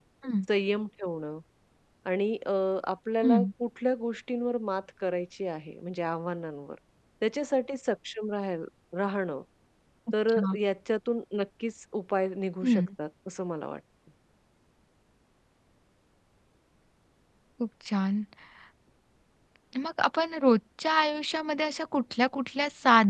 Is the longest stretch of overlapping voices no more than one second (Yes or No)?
Yes